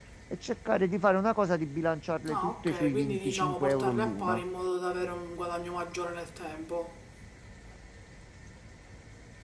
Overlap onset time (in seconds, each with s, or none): 2.2 s